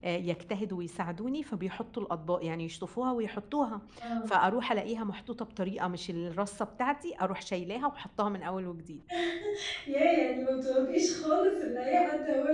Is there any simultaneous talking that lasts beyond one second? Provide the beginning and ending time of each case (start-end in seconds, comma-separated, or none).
none